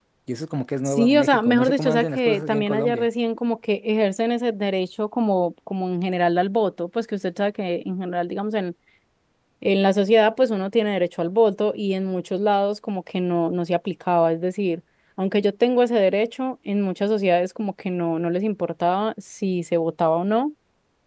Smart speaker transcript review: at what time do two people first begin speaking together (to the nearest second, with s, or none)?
1 s